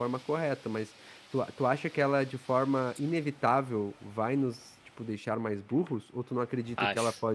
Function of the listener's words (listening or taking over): listening